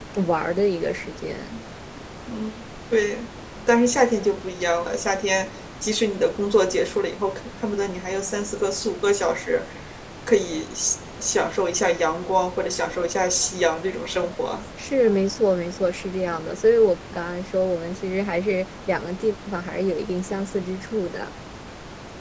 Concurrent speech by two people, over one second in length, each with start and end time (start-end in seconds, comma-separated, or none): none